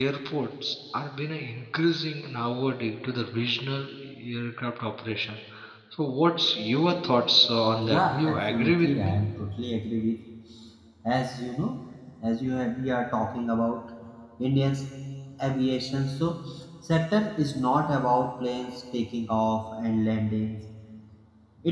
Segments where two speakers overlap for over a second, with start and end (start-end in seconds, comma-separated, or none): 7.8-9.1